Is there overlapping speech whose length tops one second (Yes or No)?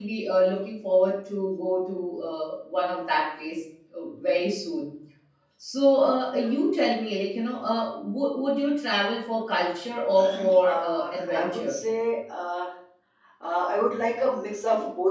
Yes